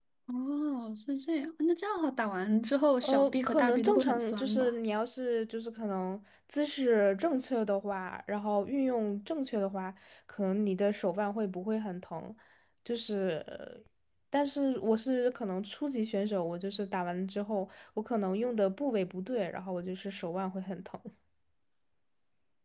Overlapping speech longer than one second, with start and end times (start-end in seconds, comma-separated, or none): 3.0-4.7